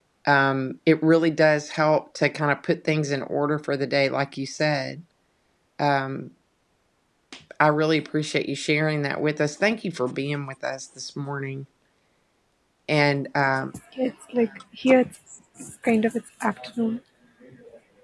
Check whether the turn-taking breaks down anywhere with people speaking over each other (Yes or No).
No